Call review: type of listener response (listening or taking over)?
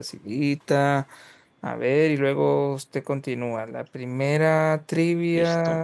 listening